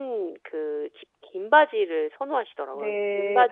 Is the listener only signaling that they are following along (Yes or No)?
No